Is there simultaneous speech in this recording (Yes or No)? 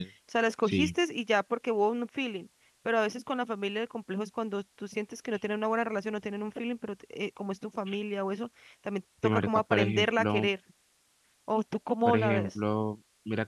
Yes